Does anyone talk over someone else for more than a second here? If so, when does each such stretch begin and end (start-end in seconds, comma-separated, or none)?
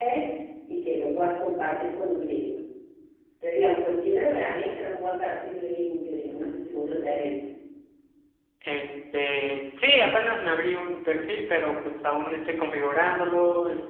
none